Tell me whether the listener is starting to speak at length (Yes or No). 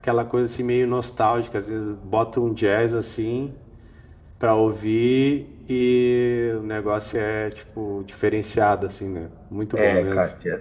Yes